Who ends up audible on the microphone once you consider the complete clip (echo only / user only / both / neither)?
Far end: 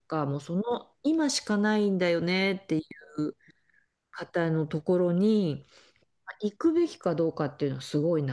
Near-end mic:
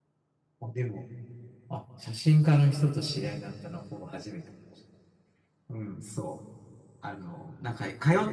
user only